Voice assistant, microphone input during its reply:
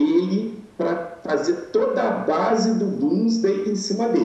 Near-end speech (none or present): none